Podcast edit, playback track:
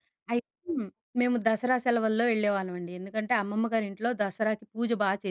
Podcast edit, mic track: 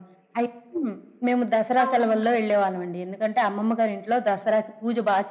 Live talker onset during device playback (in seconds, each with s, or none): 1.8 s